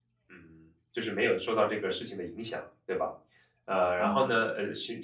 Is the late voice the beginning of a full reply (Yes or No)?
No